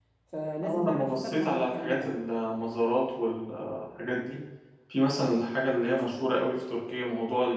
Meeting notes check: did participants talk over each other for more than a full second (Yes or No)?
Yes